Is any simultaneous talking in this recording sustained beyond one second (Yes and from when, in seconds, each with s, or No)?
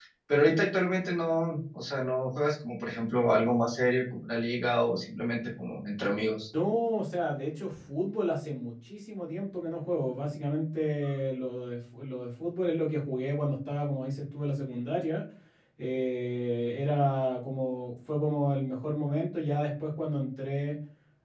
No